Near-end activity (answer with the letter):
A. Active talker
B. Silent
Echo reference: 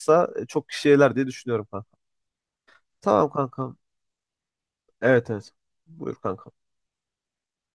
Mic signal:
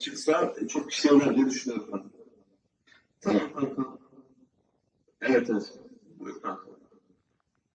B